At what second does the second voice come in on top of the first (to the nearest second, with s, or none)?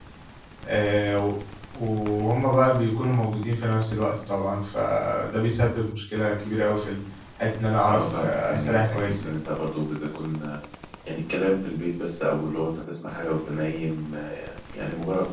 8 s